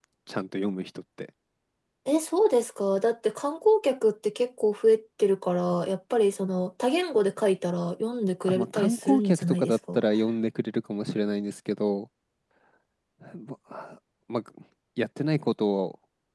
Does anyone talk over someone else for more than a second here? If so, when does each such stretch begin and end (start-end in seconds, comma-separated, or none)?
8.5-10.0